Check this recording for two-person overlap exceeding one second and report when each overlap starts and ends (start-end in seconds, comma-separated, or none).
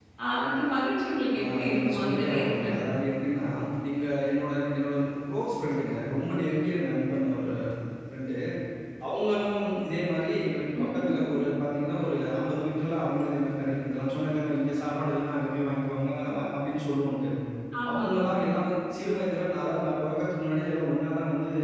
1.4-2.7